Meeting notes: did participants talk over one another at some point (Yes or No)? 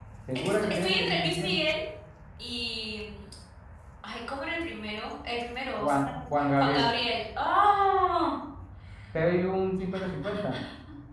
Yes